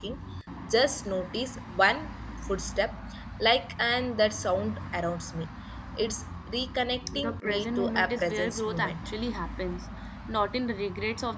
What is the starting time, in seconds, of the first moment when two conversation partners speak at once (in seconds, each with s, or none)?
7.1 s